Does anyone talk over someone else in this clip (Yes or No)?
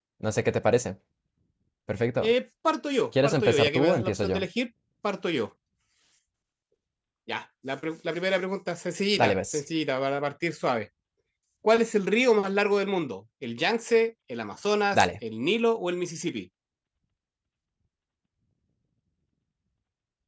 Yes